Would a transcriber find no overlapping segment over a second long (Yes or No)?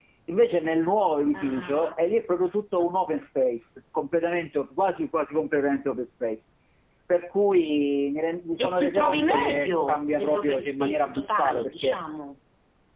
No